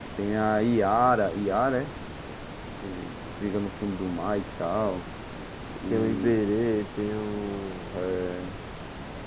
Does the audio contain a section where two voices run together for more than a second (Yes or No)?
No